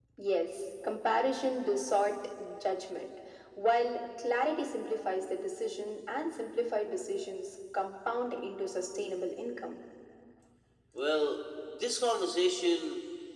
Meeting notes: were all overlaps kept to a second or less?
Yes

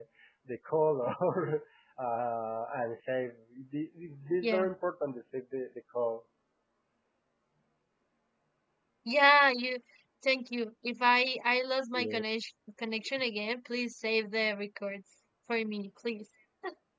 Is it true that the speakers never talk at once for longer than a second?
Yes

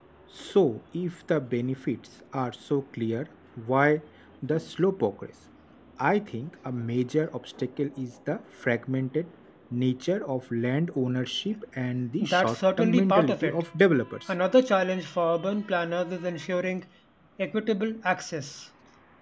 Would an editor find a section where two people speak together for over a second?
Yes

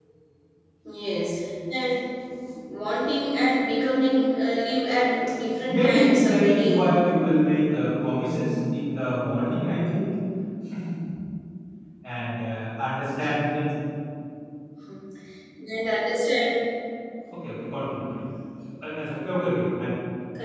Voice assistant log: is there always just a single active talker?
No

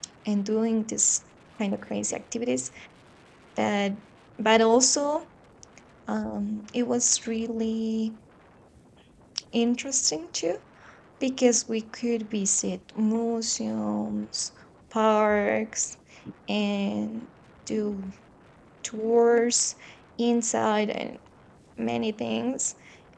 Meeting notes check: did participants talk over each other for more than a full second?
No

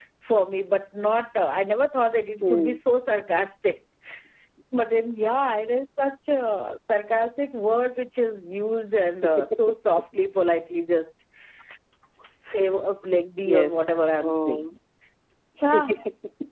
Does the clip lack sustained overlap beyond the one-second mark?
No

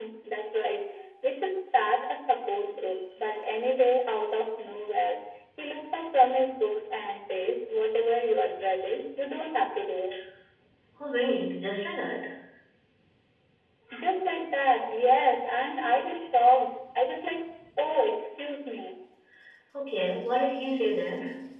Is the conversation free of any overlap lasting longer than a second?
Yes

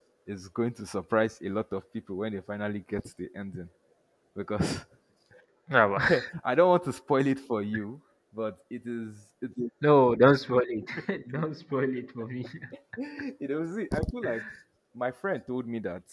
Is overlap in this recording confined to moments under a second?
Yes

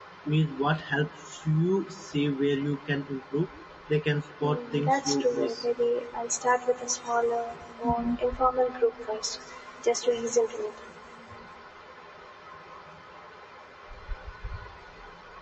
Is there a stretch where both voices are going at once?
Yes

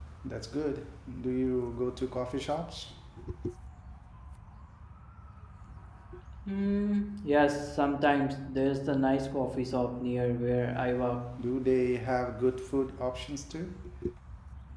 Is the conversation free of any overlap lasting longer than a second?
Yes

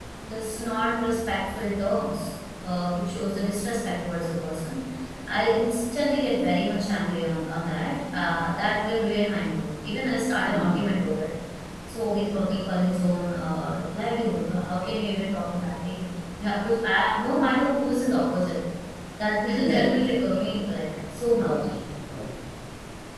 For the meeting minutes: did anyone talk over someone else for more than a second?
No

